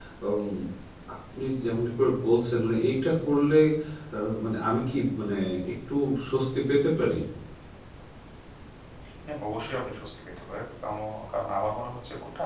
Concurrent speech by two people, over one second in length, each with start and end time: none

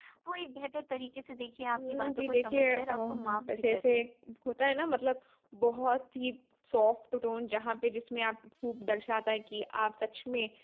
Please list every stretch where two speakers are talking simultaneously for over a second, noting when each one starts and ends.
1.8-3.9

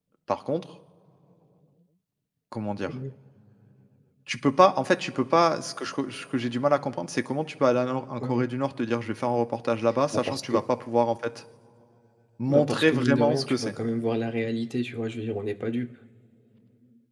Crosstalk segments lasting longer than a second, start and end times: 12.5-13.7

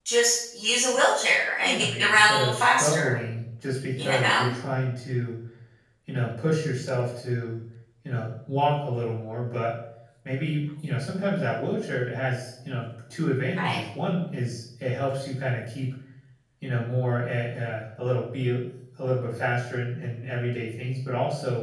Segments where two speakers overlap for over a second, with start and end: 1.6-3.2

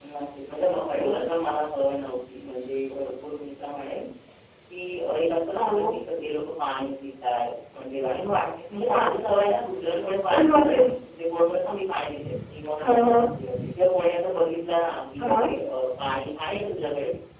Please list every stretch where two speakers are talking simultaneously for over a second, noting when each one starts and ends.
none

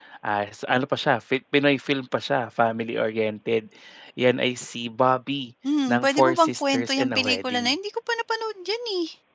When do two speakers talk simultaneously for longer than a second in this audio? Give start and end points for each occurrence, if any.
5.9-7.7

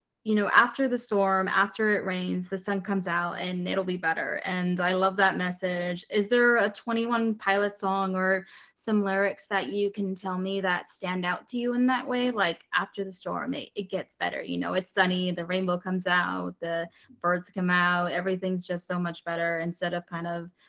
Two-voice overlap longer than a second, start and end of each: none

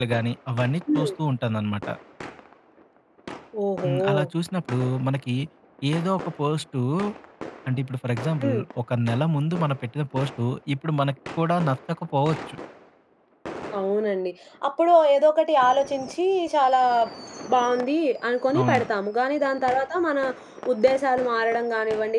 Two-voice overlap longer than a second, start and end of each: none

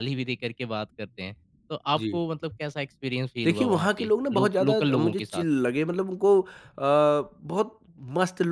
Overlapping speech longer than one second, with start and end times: 3.4-5.4

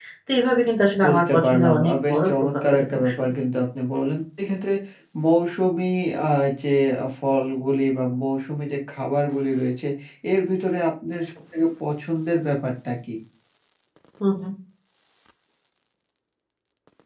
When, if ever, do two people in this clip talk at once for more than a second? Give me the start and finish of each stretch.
1.0-3.3

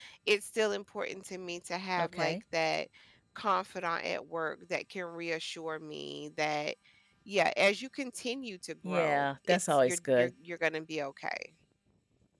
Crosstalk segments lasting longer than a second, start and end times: 8.8-10.3

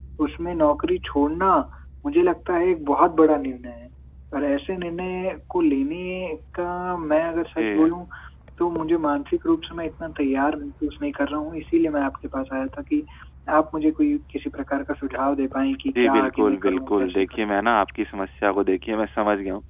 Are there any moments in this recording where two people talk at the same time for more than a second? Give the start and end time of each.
16.0-17.2

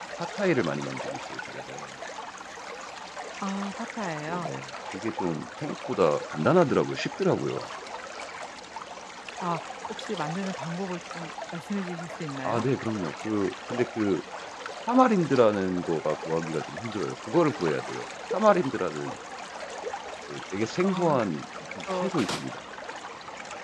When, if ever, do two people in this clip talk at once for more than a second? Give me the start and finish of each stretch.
none

